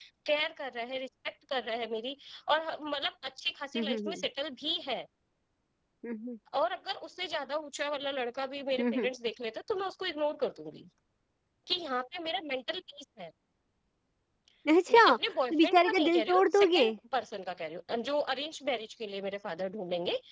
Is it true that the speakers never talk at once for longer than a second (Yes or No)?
No